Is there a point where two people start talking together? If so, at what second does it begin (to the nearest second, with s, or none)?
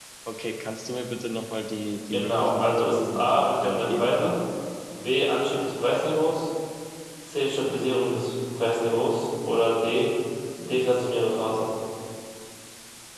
2 s